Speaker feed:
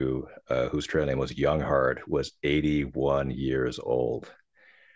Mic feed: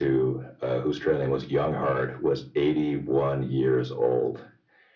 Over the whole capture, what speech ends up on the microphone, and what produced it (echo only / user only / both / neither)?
echo only